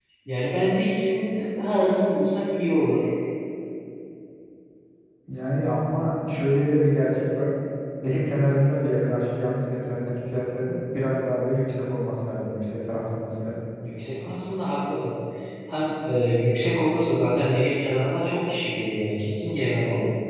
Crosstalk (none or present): none